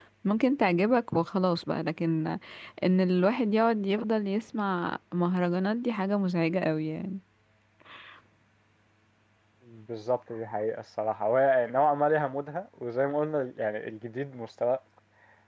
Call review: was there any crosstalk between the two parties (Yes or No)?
No